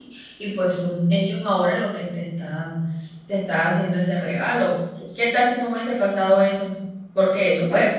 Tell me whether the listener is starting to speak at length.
No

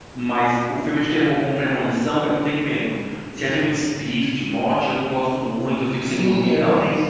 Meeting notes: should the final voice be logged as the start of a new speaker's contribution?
Yes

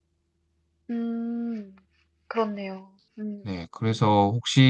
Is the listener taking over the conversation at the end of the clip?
Yes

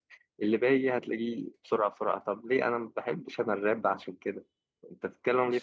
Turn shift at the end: Yes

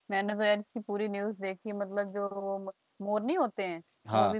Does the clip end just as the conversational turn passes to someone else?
No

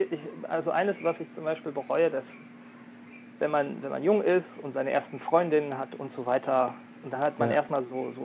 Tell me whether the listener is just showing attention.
Yes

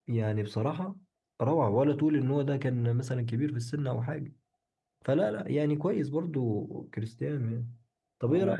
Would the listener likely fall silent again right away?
No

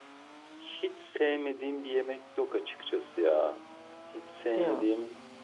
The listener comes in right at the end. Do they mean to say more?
No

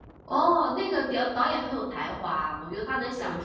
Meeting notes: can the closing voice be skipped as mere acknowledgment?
Yes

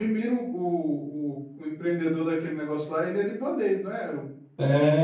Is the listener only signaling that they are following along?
No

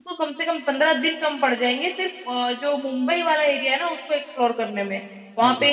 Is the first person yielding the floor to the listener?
No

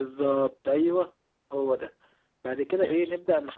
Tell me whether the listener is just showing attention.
Yes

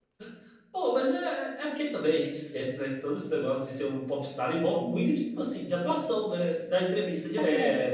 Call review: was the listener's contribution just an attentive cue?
Yes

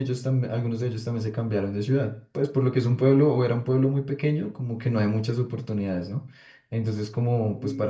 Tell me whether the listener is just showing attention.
Yes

